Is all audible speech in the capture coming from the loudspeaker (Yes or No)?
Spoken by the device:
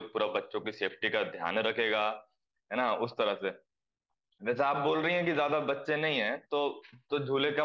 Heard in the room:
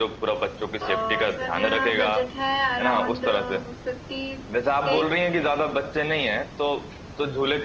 No